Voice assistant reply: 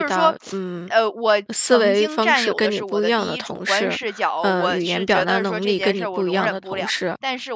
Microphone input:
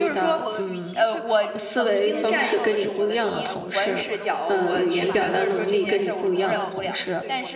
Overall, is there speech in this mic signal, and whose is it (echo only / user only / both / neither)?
both